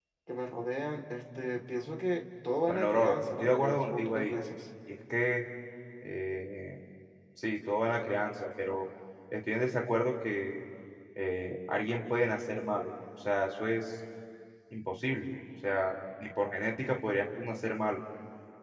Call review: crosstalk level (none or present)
present